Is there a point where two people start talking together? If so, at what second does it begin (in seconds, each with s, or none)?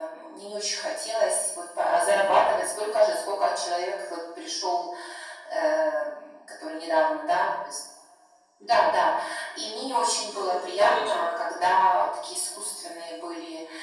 10.3 s